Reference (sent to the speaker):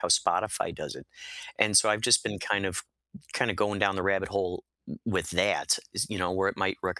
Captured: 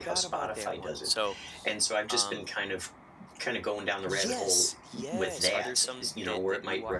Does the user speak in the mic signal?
Yes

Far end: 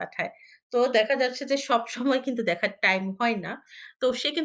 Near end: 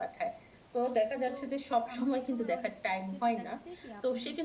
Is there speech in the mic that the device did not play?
Yes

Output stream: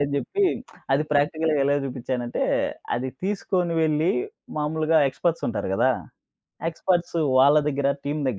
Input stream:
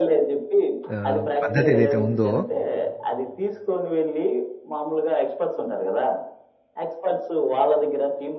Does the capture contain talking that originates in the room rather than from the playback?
Yes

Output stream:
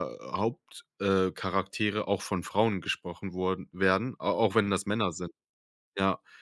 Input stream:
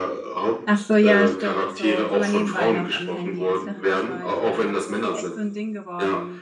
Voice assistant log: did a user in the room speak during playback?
Yes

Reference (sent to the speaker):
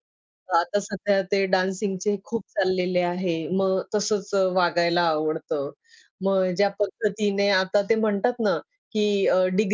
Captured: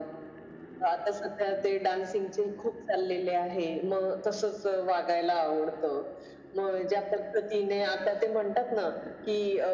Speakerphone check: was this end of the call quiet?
Yes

